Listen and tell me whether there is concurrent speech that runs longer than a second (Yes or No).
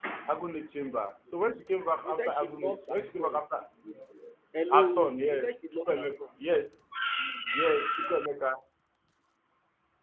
Yes